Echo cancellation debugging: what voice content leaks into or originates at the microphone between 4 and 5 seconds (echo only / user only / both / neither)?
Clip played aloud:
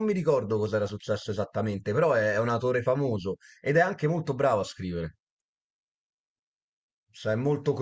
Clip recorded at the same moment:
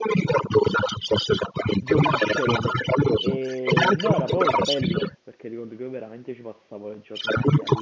both